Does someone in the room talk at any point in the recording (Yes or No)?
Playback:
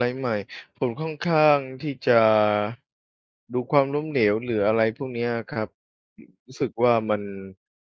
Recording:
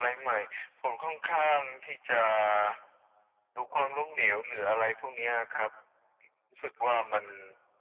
No